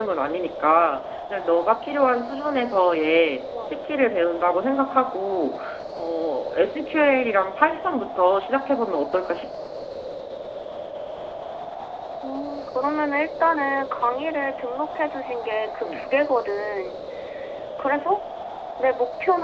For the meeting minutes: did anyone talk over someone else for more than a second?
No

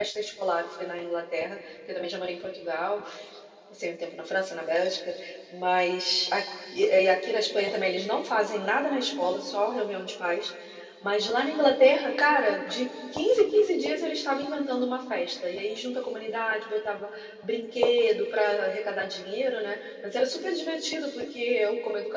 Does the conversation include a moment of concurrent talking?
No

